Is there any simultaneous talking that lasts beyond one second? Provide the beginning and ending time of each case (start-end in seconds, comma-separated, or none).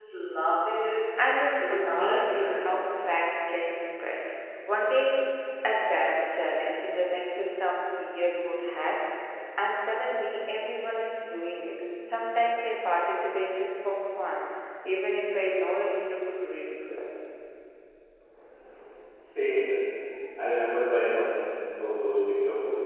1.6-2.9